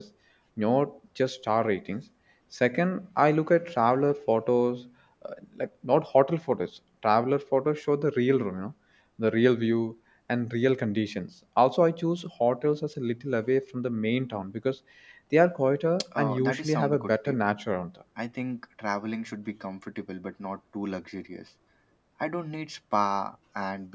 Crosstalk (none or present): present